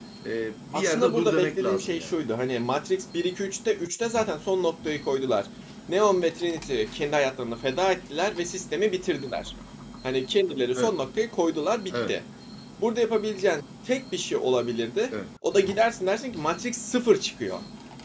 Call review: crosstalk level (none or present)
present